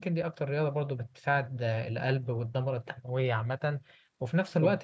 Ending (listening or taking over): listening